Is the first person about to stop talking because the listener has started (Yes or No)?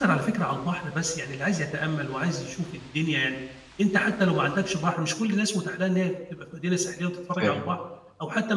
No